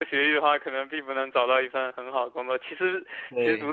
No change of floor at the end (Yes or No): Yes